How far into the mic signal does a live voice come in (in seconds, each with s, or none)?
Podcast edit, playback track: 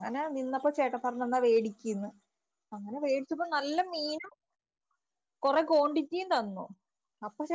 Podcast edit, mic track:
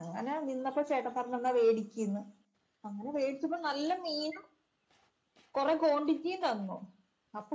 none